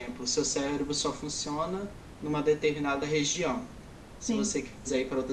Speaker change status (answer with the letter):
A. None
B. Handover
A